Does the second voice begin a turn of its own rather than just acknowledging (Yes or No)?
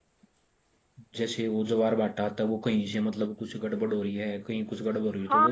Yes